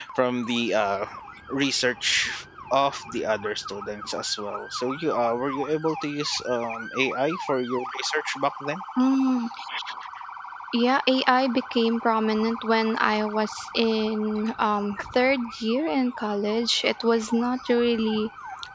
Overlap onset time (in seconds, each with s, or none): none